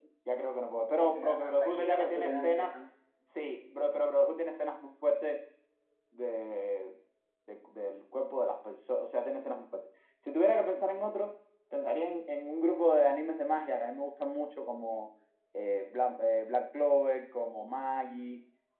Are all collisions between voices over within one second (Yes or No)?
No